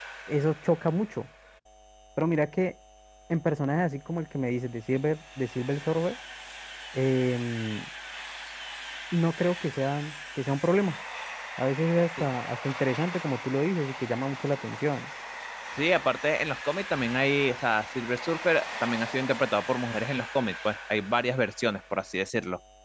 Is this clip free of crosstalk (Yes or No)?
Yes